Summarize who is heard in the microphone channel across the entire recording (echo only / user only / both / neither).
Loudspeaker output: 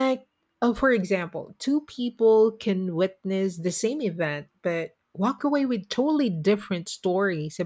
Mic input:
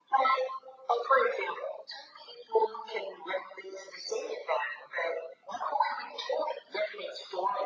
echo only